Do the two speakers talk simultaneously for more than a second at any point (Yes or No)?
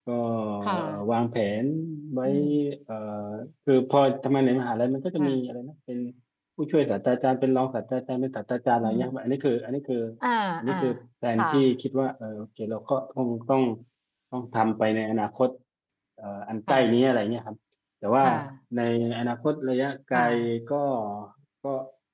No